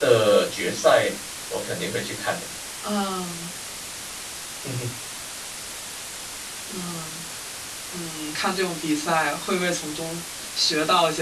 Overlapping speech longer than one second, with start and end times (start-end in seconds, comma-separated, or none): none